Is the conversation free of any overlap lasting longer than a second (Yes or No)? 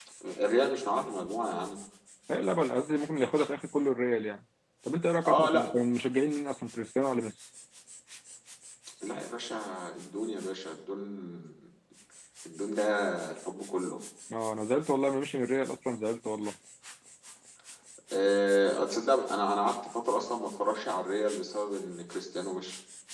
Yes